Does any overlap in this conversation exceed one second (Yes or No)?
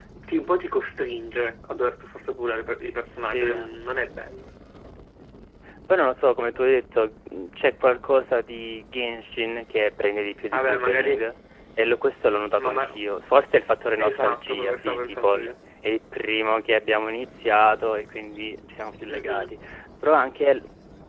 Yes